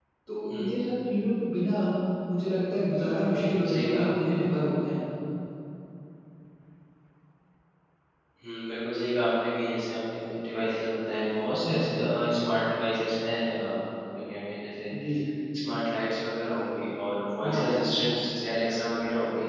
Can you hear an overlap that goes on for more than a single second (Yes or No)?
Yes